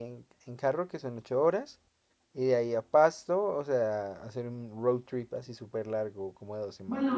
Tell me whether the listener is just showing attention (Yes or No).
No